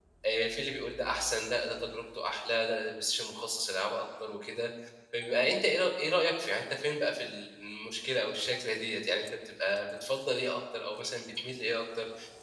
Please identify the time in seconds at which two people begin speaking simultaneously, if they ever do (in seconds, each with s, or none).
none